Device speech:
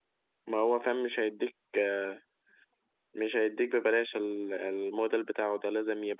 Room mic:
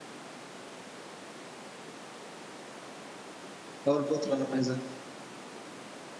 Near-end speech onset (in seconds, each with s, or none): 3.9 s